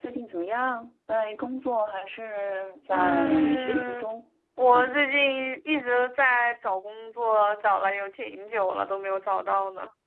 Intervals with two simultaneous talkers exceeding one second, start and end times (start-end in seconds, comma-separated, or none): 2.9-4.1